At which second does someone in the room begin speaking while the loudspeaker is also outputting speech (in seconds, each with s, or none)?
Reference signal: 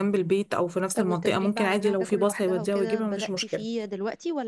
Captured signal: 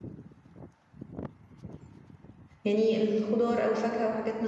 2.6 s